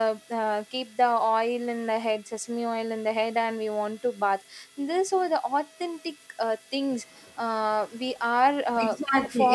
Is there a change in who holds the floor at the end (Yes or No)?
Yes